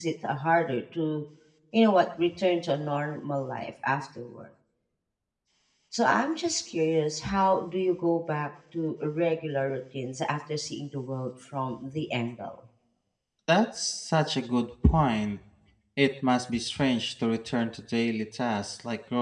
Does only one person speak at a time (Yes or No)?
Yes